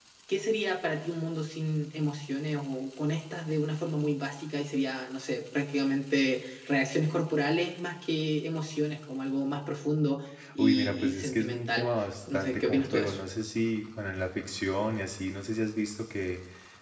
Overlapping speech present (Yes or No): Yes